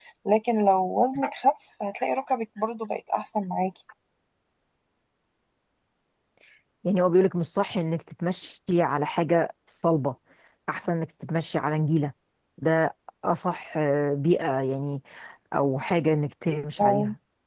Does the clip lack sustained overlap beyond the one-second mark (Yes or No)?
Yes